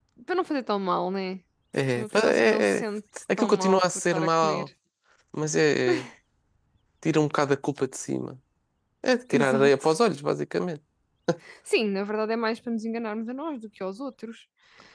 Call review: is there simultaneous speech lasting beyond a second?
Yes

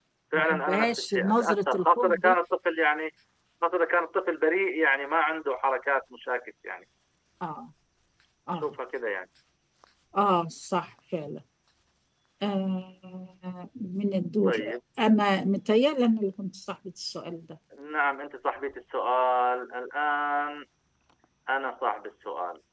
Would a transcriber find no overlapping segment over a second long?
No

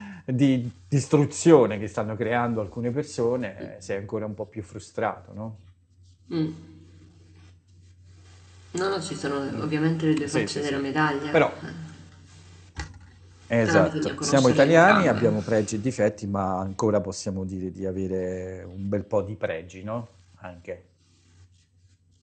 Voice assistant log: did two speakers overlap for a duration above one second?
Yes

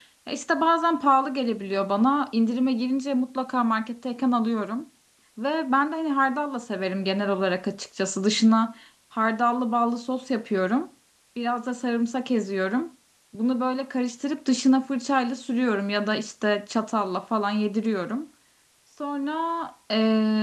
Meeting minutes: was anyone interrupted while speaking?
No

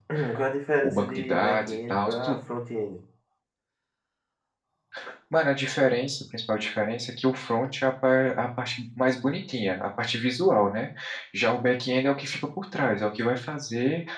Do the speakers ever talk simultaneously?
Yes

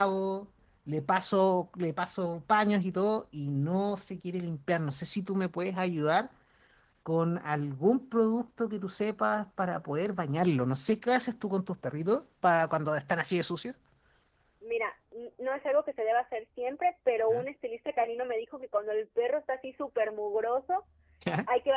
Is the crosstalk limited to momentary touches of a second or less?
Yes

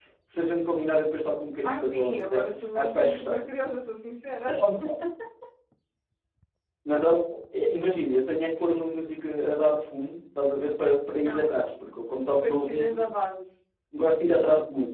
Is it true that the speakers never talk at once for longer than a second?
No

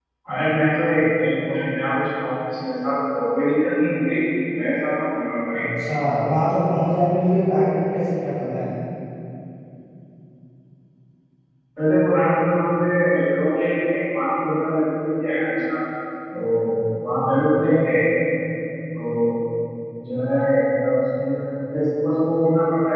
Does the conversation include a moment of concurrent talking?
No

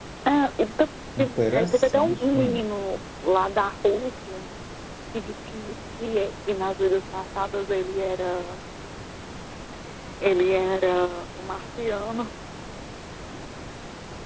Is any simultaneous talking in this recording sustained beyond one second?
Yes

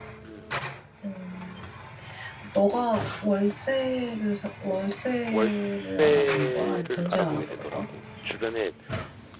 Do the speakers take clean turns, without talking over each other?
No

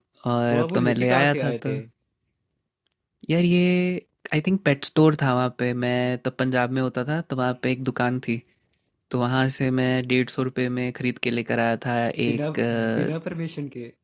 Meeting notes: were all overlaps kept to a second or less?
No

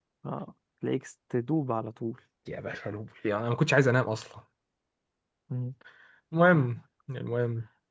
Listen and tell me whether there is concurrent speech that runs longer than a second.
No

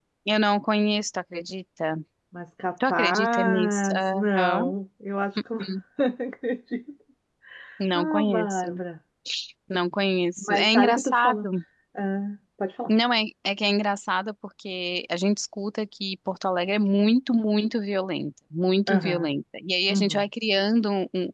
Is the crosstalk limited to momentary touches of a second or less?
No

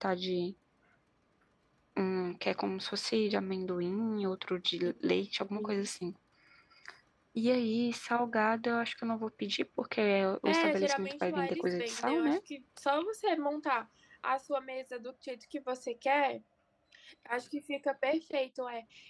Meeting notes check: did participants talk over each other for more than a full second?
Yes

